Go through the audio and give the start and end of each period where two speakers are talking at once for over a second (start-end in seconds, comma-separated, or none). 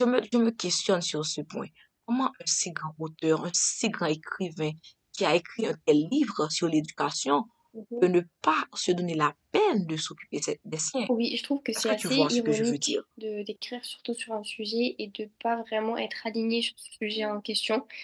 11.8-13.0